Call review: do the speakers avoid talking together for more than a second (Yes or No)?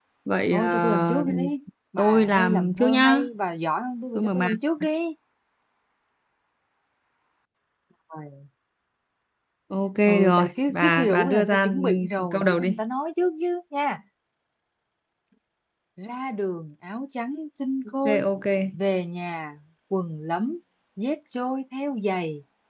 No